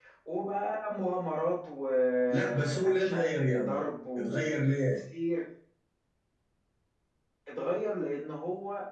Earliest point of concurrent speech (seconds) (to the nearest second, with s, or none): 2 s